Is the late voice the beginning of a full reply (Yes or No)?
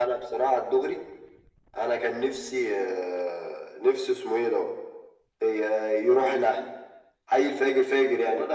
Yes